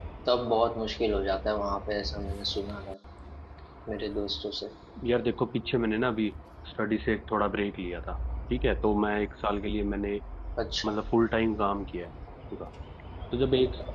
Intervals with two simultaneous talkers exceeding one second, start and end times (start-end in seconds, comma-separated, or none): none